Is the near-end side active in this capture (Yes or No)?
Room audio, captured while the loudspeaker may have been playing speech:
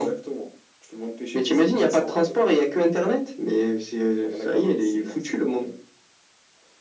No